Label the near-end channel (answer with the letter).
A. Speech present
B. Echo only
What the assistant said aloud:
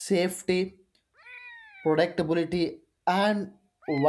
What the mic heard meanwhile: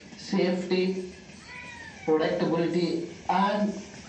B